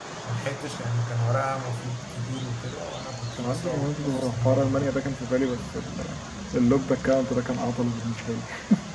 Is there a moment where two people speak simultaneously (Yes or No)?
Yes